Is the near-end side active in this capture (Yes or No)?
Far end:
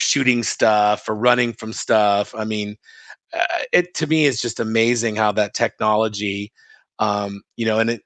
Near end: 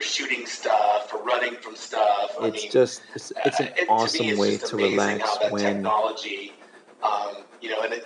Yes